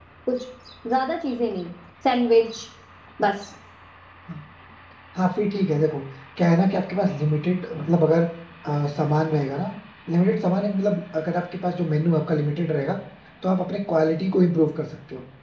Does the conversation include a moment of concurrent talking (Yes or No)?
No